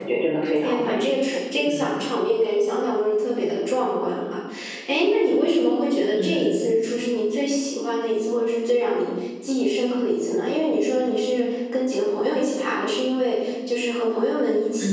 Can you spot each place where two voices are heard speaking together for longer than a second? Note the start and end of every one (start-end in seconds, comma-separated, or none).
none